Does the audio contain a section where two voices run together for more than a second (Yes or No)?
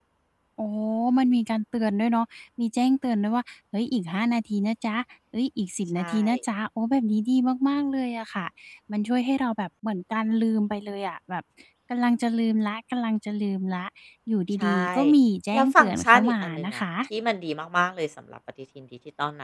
Yes